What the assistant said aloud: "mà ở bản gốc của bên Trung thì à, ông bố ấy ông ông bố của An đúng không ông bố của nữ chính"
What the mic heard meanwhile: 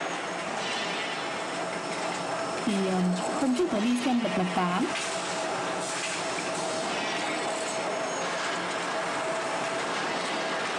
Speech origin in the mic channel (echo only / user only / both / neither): user only